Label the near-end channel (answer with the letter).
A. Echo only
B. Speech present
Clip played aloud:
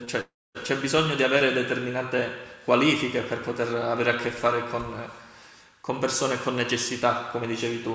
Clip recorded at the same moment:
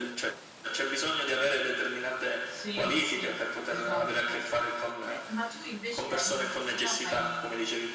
B